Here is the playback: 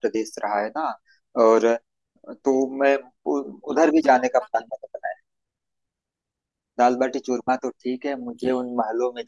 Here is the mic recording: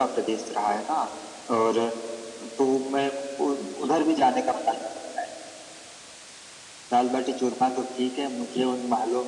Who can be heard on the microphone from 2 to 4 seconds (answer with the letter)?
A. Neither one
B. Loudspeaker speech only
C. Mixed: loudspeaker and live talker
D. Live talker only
B